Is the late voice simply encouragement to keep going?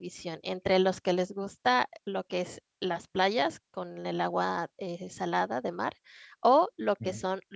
Yes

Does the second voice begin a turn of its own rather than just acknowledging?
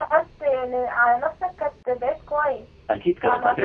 Yes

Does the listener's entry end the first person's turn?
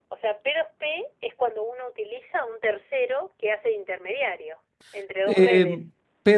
Yes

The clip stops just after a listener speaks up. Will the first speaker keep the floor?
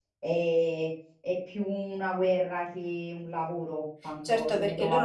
No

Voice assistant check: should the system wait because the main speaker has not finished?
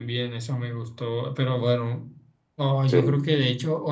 Yes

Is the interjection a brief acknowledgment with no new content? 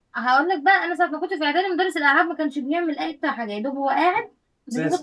Yes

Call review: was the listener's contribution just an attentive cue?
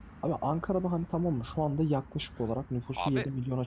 Yes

